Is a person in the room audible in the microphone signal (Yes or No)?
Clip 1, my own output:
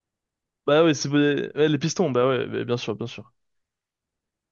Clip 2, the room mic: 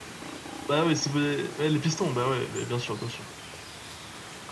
No